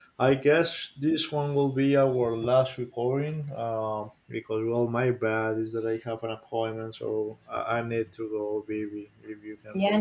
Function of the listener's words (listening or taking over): taking over